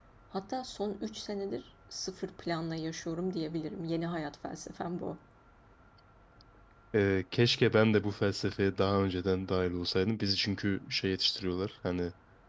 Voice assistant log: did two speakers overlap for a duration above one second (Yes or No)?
No